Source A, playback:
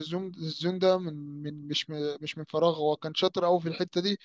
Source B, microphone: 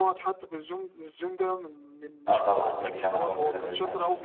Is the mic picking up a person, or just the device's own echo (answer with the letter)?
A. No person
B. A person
B